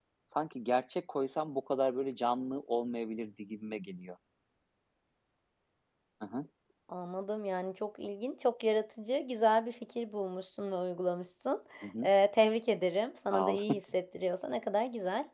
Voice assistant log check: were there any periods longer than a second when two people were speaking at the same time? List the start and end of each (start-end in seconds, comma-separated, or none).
none